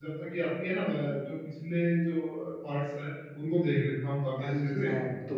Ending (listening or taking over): taking over